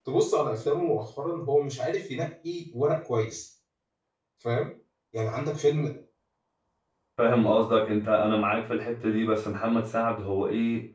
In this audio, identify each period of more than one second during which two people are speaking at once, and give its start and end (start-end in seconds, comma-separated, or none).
none